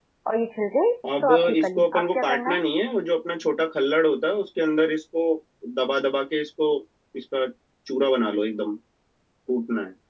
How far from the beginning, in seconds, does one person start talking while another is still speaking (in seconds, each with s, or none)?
1.2 s